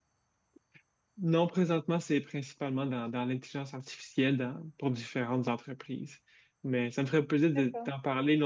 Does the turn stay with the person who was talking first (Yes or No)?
Yes